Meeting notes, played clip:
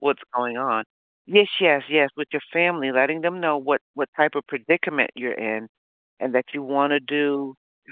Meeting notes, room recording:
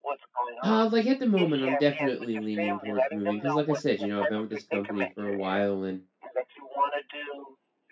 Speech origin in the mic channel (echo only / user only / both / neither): both